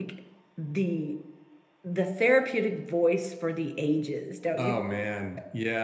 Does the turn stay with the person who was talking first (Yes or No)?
No